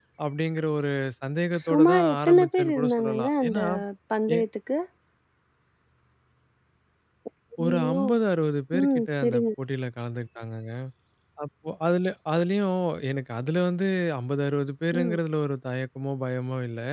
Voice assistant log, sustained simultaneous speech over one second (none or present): present